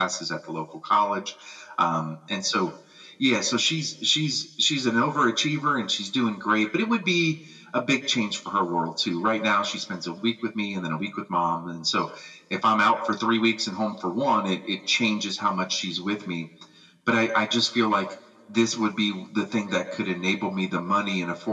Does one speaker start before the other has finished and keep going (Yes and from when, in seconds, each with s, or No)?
No